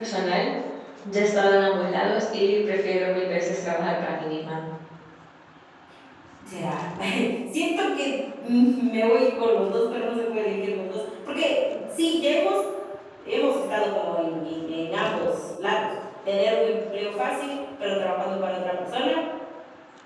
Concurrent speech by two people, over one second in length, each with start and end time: none

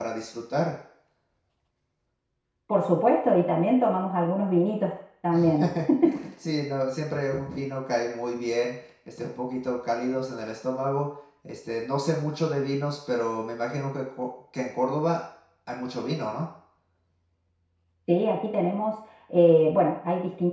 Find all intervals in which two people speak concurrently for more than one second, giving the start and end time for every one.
none

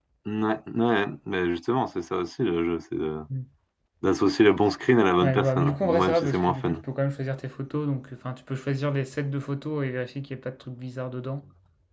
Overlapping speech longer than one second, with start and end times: 5.2-6.8

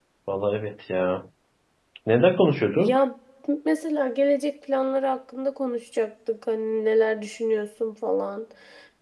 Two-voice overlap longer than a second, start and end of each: none

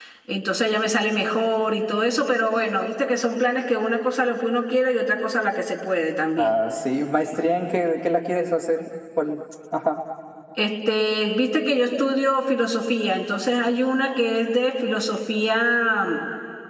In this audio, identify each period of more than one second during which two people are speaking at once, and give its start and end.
none

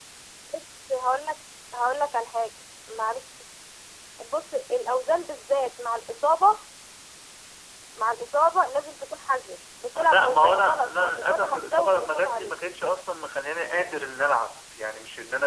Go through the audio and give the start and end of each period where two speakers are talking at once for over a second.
10.0-12.6

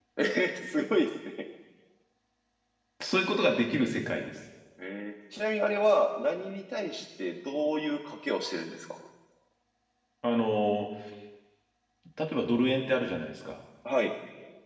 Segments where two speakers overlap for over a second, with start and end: none

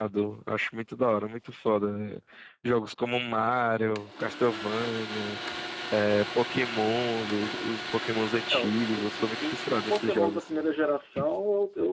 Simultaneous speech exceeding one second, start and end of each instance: 8.5-10.4

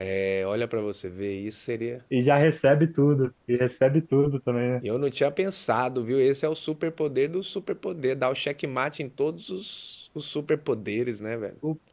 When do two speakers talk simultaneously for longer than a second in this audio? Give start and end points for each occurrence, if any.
none

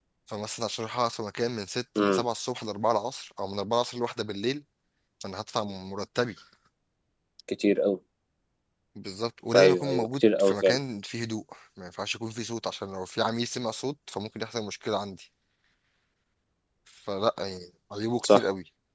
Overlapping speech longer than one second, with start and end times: 9.6-10.8

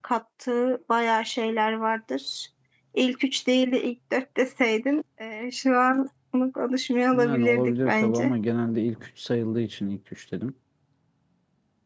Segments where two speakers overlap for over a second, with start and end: 7.1-8.3

